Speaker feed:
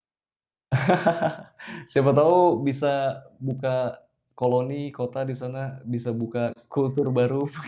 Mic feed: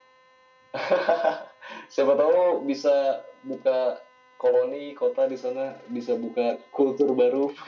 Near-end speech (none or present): none